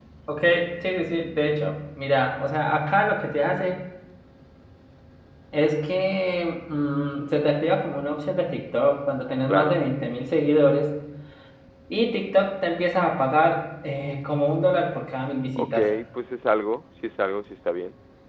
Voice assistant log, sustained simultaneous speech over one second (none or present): none